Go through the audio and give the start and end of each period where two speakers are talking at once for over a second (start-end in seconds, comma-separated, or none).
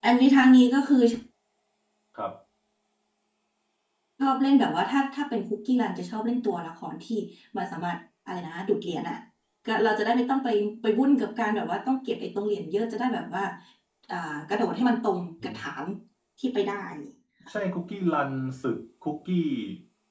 none